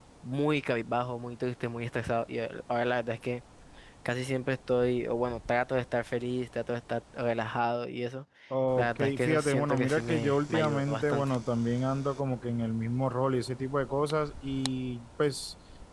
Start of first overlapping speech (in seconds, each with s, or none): 8.8 s